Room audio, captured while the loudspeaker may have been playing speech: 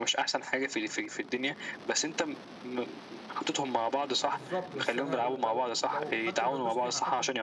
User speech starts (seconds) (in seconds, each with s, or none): 4.3 s